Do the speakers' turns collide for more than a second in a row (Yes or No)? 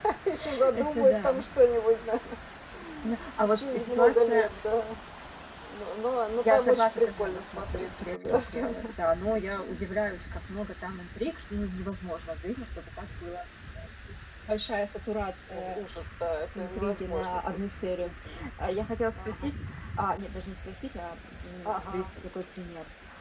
Yes